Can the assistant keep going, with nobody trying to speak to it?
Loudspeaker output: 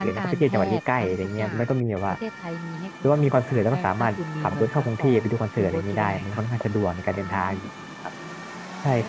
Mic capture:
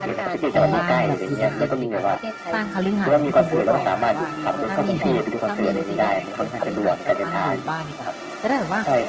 No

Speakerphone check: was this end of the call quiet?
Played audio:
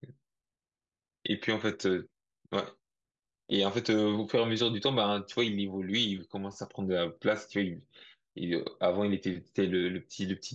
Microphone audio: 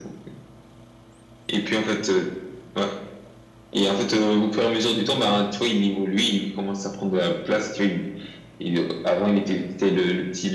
Yes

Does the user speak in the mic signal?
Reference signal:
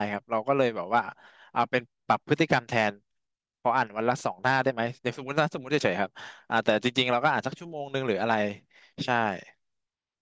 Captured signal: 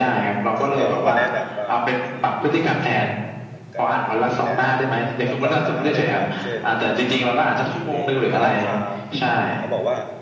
Yes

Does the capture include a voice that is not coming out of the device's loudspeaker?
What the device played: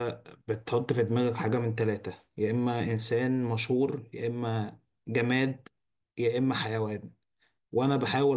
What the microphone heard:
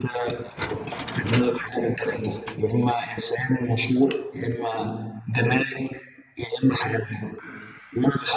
No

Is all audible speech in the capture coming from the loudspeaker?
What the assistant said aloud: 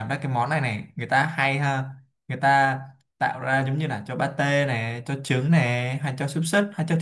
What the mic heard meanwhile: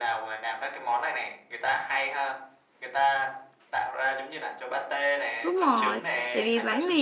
No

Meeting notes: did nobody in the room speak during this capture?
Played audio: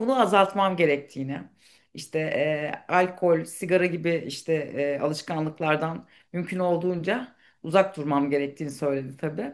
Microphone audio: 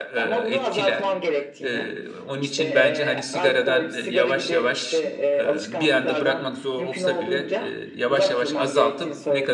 No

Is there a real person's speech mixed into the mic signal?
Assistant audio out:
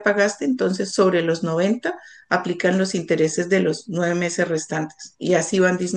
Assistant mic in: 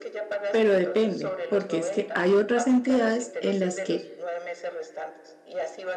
Yes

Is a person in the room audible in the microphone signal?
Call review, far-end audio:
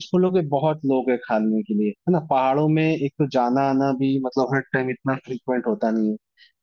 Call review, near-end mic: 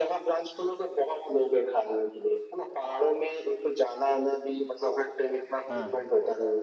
Yes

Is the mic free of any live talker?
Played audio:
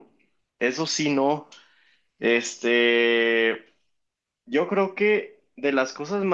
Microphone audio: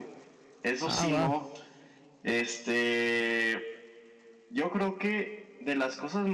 No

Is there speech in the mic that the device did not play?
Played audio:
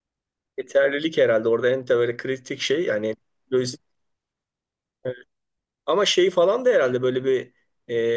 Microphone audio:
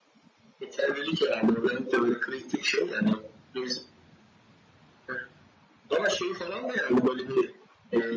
No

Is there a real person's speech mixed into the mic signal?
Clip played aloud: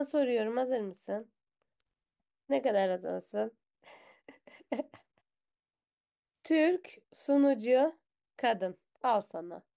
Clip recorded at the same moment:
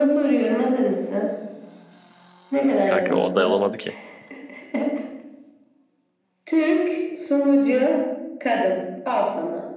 Yes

